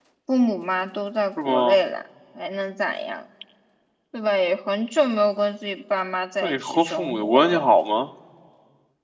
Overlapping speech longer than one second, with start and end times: 6.4-7.6

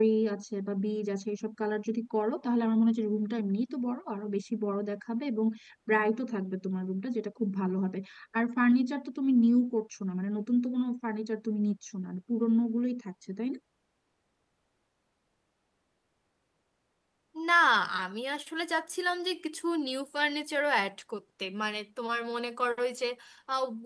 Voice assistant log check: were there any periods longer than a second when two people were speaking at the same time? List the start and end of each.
none

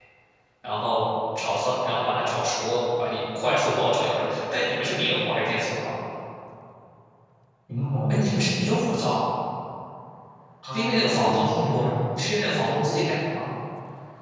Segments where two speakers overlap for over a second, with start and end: 10.6-11.9

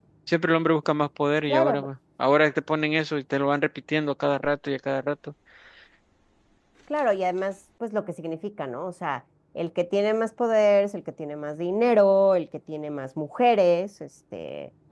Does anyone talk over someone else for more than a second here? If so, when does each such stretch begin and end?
none

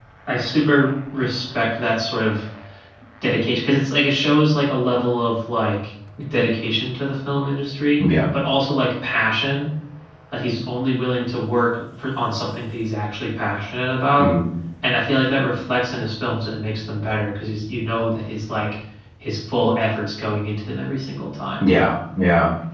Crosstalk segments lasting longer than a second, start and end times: none

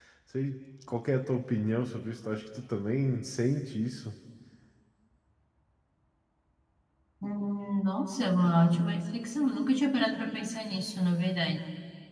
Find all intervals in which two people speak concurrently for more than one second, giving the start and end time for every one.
none

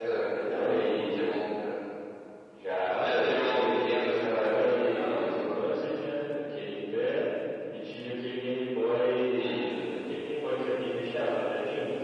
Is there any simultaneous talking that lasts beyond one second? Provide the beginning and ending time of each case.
3.0-5.6

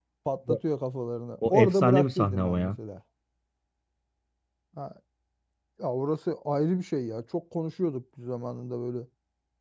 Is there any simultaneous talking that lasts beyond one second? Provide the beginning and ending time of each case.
1.5-2.7

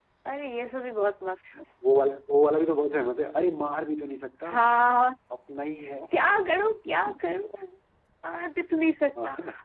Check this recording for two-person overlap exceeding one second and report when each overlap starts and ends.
none

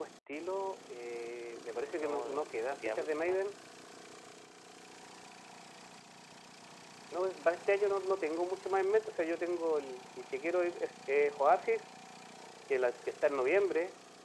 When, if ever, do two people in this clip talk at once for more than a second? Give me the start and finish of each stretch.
1.9-3.4

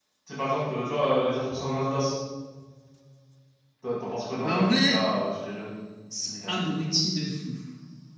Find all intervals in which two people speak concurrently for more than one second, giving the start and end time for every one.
none

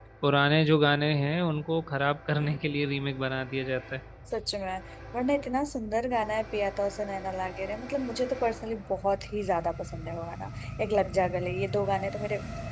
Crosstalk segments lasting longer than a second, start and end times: none

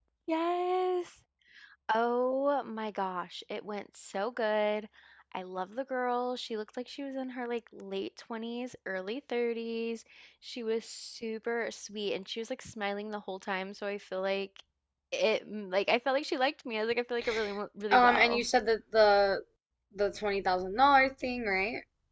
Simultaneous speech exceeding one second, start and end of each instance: none

